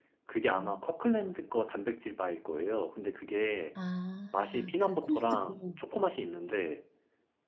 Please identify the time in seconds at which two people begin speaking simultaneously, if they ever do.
4.3 s

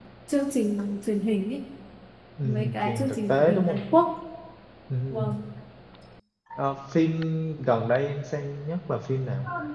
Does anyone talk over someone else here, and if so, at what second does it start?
2.4 s

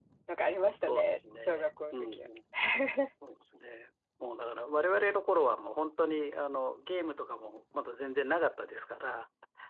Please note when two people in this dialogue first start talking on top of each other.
0.9 s

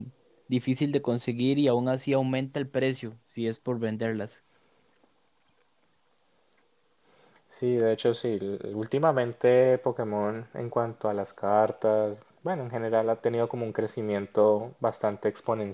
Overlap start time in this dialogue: none

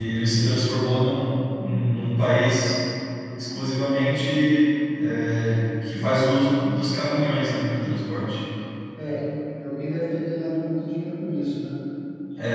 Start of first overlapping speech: none

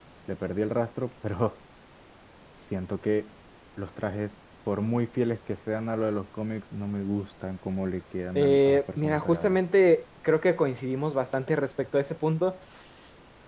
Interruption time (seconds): 8.3 s

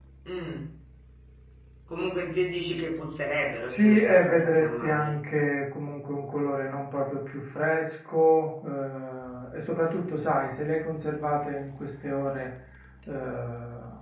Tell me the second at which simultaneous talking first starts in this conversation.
3.6 s

